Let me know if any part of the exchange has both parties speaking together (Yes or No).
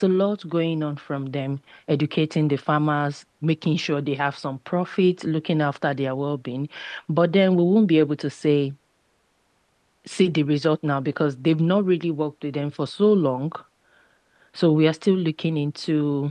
No